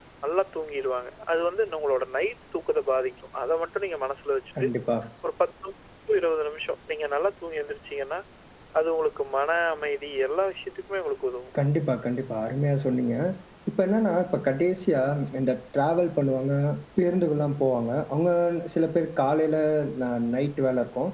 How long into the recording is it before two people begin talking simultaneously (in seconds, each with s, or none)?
none